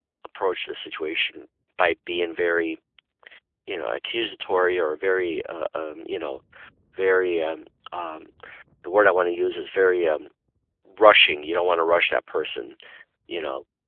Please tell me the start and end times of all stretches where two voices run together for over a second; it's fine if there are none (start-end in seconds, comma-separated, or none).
none